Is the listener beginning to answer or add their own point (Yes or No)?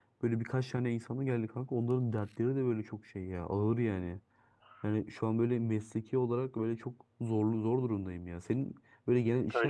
No